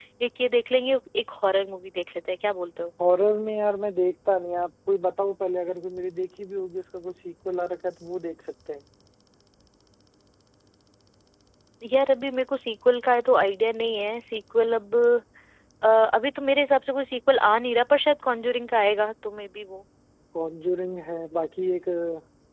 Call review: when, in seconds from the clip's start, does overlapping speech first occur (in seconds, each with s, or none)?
none